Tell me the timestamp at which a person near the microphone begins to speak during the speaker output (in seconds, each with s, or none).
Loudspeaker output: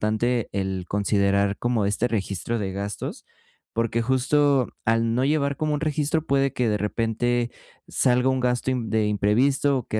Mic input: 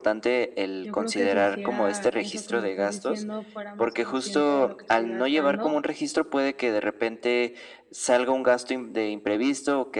0.8 s